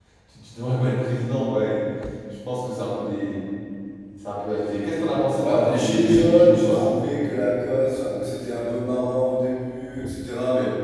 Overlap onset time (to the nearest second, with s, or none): 5 s